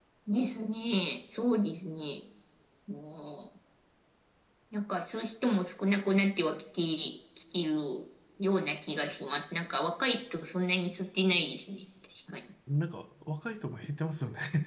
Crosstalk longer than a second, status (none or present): none